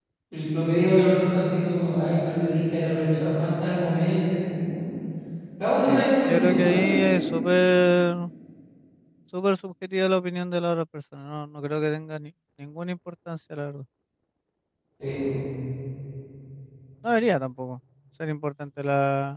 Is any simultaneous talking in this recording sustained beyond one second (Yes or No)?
Yes